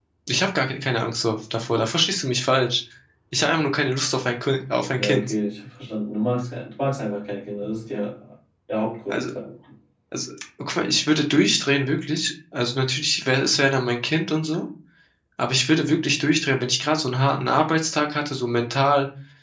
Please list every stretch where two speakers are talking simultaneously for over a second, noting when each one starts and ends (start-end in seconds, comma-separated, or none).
none